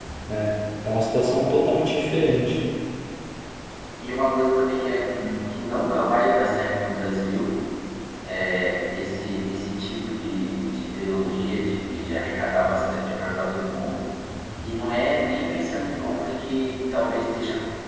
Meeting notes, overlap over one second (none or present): none